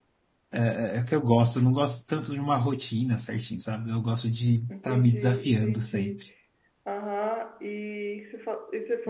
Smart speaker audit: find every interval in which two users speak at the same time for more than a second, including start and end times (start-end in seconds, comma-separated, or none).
4.7-6.2